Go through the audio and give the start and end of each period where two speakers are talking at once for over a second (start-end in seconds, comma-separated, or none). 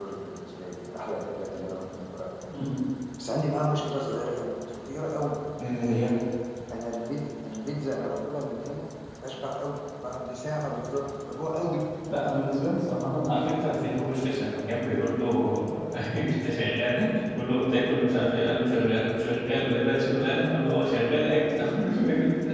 none